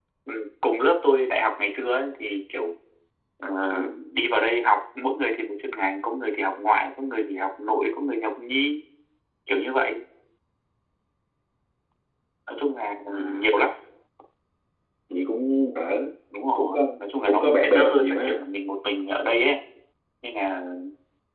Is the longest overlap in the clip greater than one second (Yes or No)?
Yes